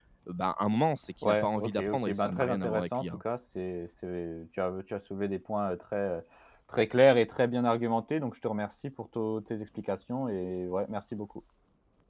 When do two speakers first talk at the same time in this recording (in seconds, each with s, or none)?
1.2 s